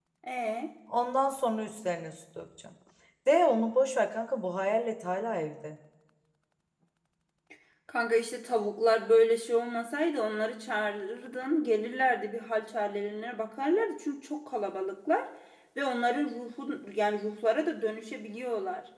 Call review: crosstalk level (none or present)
none